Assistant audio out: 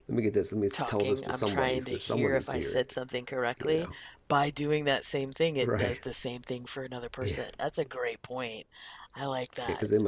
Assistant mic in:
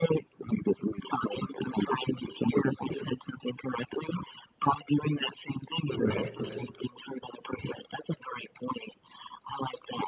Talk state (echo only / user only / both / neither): both